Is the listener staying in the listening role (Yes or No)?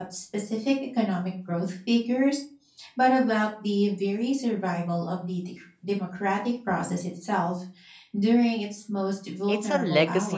No